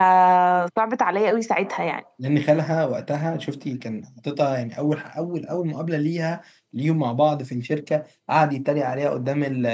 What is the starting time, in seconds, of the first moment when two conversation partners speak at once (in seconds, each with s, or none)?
none